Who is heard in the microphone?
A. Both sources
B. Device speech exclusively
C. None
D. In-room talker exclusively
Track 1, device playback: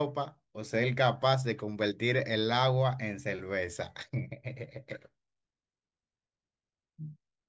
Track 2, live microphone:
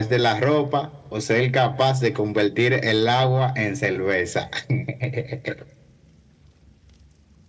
B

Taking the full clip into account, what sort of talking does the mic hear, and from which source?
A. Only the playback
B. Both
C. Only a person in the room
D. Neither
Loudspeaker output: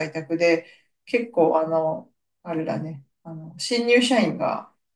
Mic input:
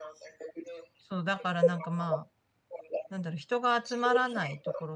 B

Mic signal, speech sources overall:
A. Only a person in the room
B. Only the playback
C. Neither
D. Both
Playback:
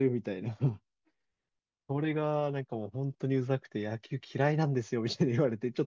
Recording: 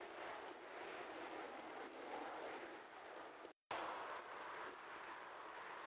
C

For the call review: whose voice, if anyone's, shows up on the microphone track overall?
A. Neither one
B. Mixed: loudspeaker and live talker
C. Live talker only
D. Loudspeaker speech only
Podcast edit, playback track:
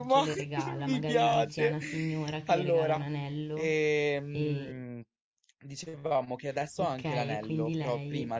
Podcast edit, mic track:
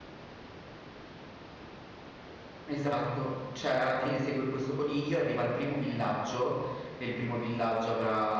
C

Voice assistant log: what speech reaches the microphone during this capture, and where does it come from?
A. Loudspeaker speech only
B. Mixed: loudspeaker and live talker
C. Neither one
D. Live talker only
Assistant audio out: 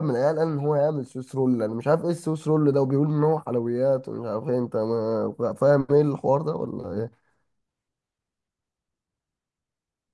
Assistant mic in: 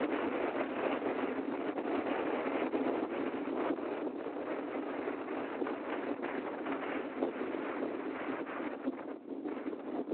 C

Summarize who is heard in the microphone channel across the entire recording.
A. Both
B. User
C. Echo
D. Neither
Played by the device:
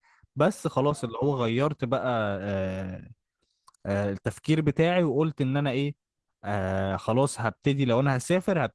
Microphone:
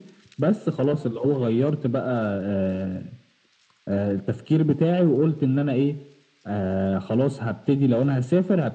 C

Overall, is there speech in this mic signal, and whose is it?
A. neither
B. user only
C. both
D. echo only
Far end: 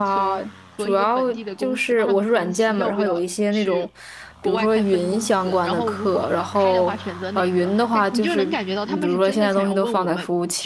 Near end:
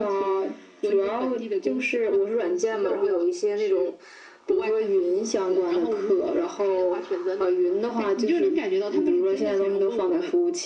D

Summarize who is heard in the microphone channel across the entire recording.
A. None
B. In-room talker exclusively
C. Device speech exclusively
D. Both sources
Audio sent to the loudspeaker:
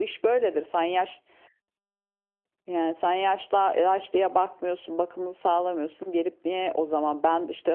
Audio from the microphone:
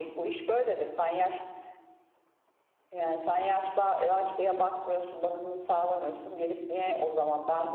C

